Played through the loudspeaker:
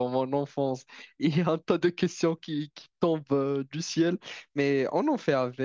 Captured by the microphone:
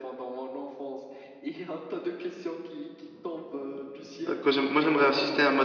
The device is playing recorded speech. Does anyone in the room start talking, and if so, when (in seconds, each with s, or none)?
4.3 s